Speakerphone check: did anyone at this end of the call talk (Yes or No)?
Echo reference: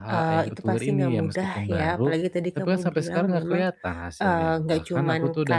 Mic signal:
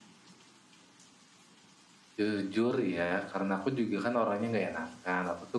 Yes